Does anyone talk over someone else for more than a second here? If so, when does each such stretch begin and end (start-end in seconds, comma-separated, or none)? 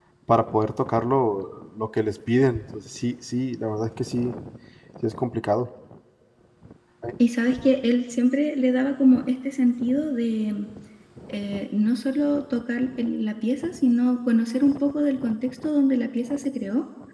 none